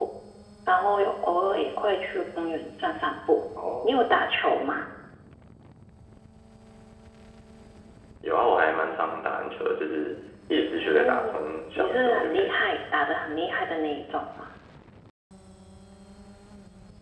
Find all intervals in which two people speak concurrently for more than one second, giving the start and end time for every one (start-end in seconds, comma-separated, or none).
10.7-12.7